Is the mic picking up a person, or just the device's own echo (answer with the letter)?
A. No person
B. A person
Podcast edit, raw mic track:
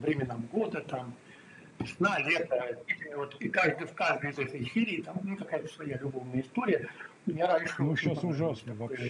B